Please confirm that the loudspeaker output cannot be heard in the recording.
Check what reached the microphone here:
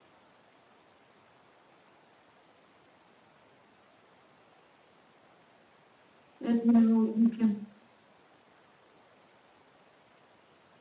Yes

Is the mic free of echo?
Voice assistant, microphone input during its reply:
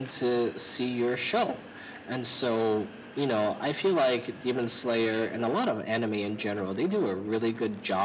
No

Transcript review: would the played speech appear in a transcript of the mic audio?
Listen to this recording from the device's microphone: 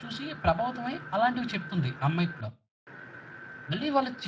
No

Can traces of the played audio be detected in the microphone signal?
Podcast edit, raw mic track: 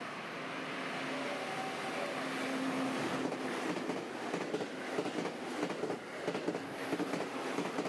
No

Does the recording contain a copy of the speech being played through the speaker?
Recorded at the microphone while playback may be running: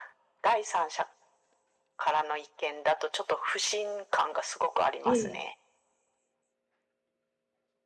Yes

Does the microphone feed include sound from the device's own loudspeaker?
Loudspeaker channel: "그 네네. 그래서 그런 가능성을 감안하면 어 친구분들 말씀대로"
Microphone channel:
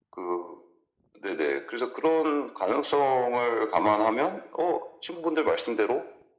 Yes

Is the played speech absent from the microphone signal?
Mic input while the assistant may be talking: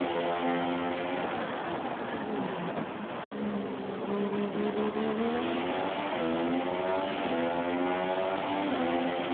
Yes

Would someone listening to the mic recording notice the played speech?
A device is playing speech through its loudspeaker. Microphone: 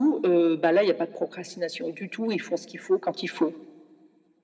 Yes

